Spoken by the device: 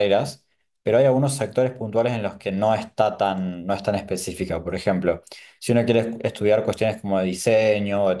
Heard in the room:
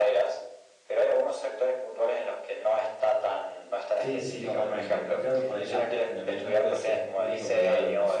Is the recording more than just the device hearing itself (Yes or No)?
Yes